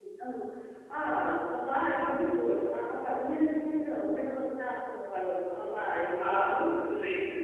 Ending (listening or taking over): taking over